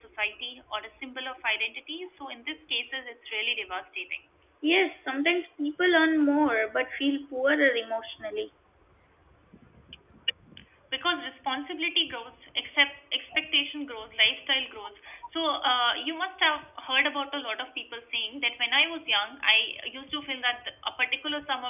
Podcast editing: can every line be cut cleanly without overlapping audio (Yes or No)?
Yes